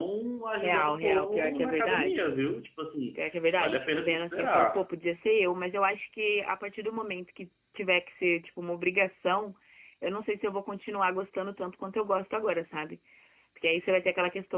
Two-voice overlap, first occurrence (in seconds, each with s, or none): 0.6 s